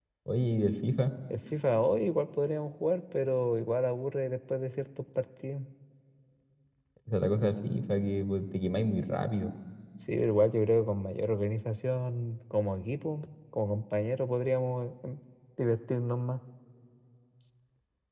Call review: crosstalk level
none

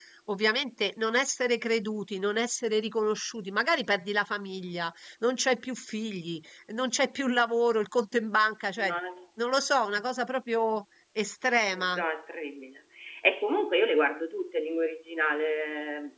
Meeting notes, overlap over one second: none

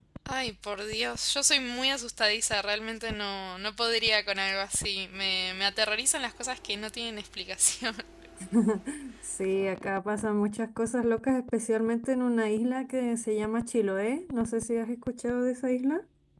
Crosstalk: none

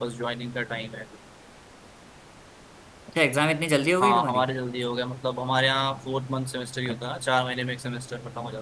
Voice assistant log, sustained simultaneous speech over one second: none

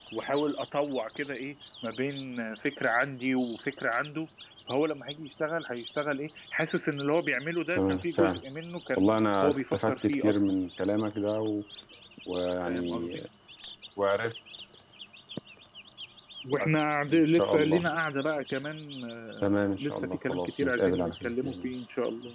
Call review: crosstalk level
present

